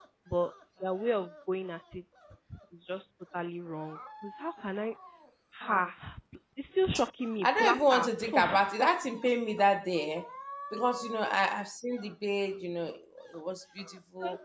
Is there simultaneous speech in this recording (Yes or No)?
Yes